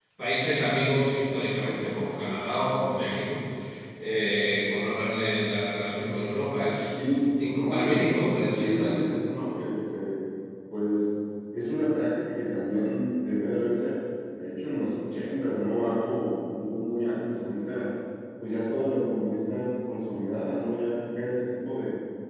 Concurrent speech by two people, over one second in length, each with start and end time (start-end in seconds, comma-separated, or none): 6.9-8.9